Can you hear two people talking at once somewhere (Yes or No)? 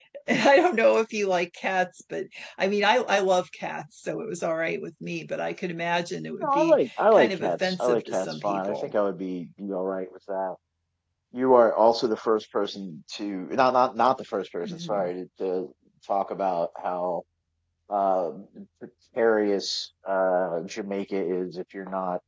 Yes